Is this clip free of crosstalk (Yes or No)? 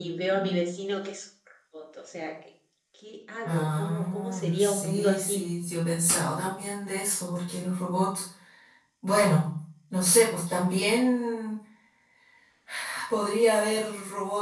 No